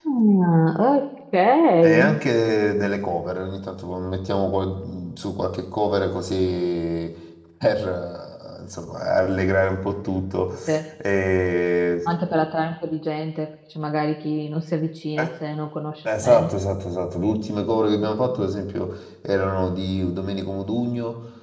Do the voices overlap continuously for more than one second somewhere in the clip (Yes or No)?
No